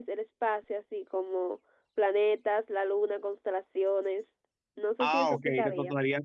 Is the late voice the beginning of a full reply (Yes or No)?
Yes